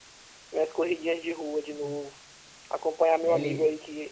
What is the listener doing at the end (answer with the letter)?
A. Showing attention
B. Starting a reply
A